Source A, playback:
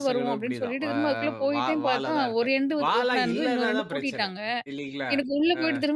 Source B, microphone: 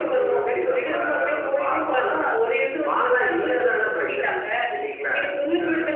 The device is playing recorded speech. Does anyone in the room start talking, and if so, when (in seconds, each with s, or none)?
none